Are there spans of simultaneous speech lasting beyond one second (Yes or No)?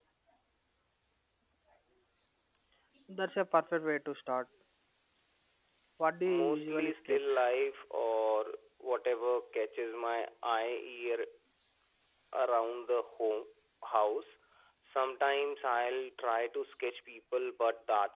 Yes